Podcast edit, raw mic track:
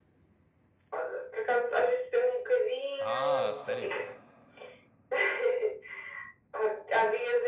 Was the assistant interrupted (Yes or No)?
Yes